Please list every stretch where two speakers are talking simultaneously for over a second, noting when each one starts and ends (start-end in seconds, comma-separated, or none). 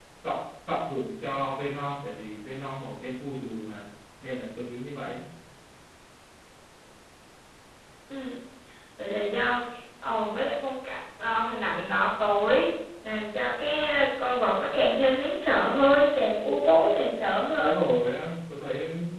none